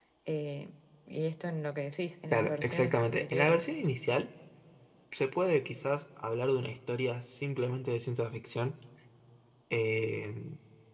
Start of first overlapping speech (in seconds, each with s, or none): 2.3 s